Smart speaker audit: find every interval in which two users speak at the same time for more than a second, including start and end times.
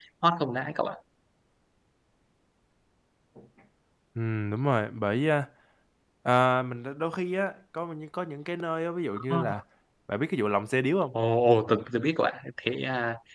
none

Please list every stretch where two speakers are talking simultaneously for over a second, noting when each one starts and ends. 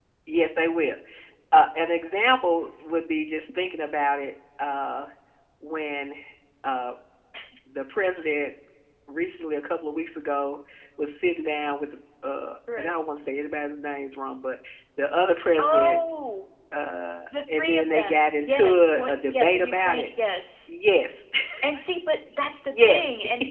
17.6-20.1

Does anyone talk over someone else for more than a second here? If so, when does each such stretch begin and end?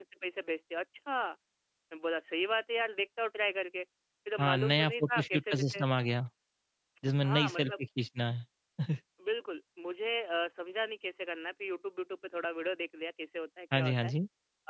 4.4-5.8

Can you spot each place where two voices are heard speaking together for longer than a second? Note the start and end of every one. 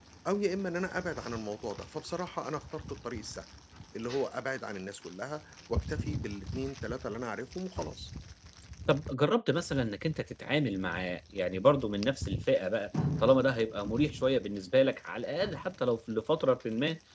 none

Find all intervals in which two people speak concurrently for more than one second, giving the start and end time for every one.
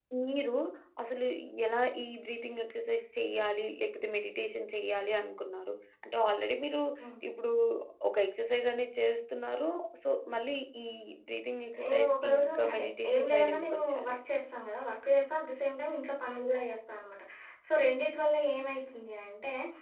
11.9-14.2

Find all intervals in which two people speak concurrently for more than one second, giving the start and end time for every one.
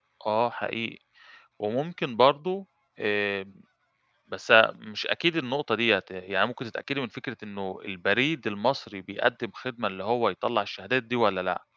none

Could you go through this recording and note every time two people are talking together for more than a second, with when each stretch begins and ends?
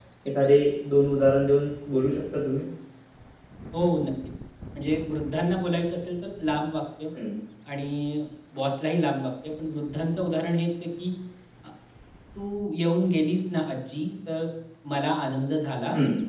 none

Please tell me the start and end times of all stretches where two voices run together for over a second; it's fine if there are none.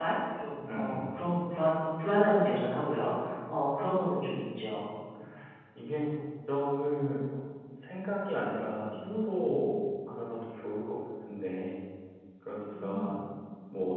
none

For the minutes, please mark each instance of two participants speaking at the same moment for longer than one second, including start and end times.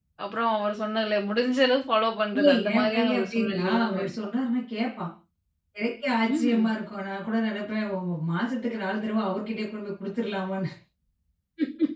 2.4-4.1

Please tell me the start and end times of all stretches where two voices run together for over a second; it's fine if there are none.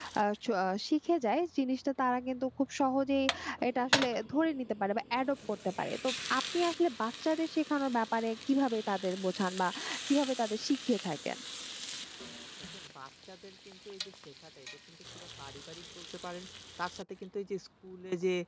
none

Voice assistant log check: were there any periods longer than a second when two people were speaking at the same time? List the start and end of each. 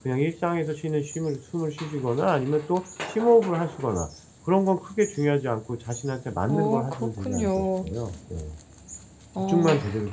6.5-7.8

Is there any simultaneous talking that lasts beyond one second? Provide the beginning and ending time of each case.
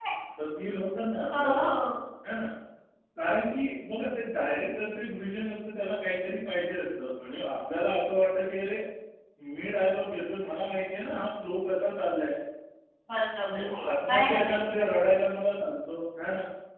13.5-14.8

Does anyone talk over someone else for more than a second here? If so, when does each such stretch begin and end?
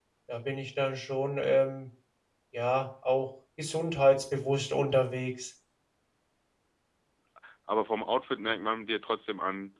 none

